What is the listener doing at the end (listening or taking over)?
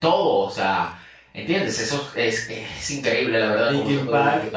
taking over